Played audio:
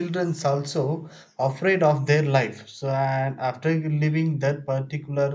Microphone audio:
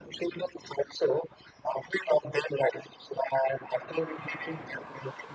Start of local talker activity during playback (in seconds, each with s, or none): none